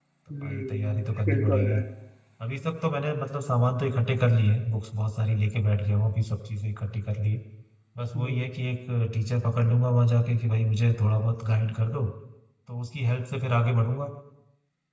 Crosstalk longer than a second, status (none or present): present